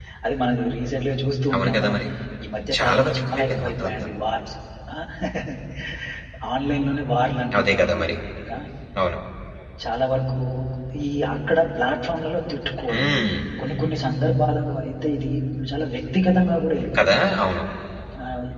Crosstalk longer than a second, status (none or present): present